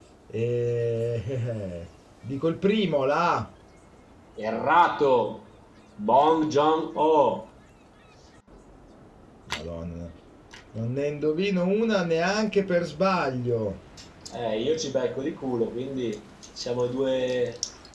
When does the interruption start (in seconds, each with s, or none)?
none